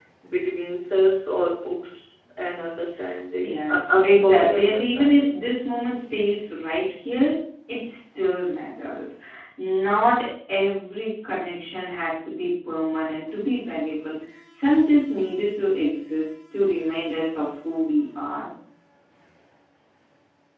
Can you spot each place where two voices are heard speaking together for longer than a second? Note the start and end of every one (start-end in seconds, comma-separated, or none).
3.4-5.4